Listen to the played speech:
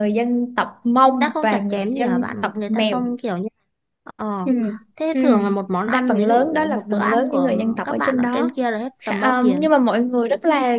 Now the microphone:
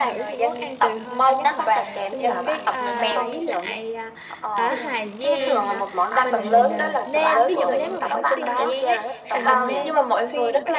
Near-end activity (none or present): present